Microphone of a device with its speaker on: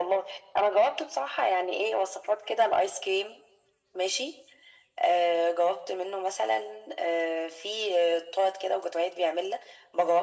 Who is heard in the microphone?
echo only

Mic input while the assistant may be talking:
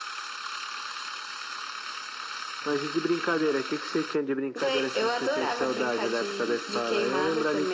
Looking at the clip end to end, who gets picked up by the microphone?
echo only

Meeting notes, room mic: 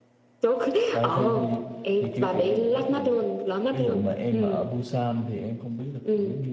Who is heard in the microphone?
both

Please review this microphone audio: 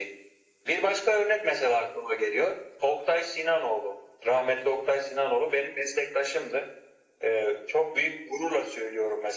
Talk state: echo only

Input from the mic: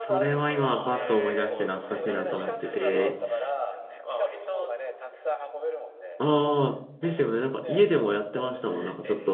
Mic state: both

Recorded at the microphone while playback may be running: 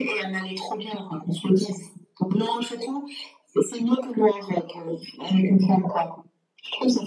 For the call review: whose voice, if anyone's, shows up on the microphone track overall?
echo only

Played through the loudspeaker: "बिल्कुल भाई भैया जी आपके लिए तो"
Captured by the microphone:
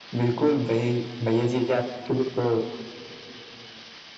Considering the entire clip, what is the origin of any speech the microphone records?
echo only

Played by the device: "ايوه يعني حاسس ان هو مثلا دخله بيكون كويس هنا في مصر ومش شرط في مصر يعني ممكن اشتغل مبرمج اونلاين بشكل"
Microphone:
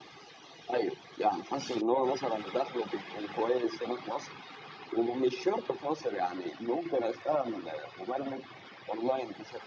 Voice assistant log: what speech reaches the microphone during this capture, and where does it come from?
echo only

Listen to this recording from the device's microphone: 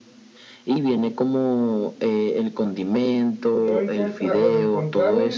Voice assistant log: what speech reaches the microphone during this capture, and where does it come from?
both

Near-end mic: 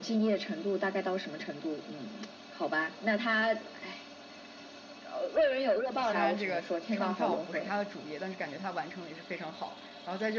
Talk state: both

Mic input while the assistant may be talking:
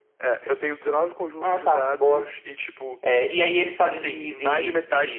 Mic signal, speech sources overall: echo only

